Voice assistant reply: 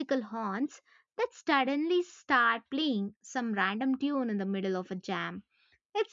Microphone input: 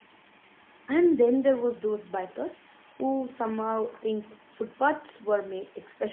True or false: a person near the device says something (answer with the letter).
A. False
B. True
B